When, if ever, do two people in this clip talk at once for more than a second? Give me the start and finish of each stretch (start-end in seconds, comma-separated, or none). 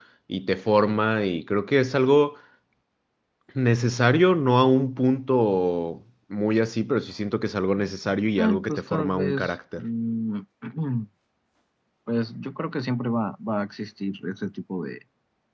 8.4-9.8